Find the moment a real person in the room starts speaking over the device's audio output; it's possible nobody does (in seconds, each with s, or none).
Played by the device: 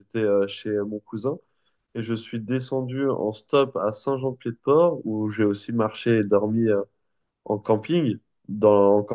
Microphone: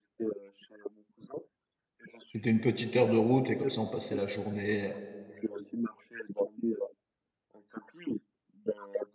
2.3 s